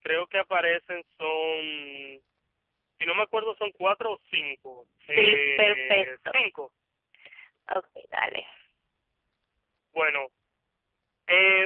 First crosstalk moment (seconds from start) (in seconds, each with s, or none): 5.0 s